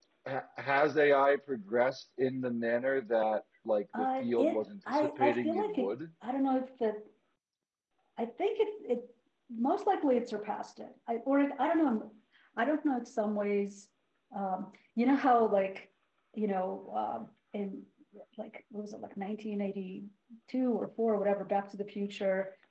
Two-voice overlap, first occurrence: 3.9 s

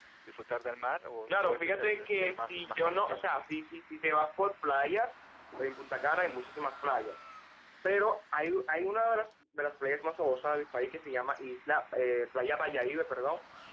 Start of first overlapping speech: 1.3 s

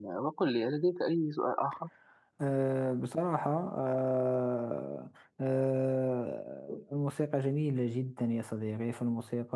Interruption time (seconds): none

